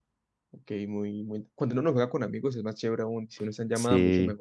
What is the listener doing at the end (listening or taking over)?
taking over